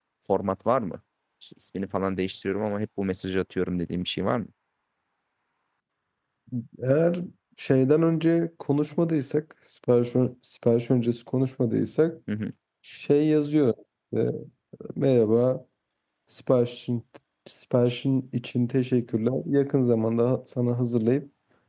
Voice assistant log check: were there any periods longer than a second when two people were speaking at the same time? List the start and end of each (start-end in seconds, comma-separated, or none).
none